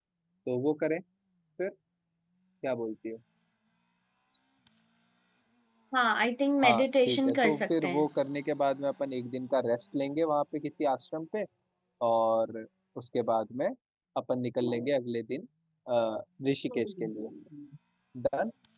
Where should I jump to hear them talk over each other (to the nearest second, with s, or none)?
7 s